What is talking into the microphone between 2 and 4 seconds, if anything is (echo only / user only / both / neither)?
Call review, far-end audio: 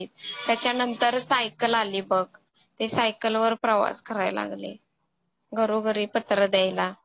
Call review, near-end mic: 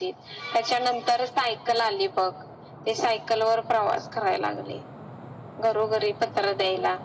echo only